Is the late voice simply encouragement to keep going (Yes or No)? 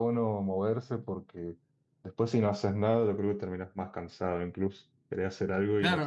No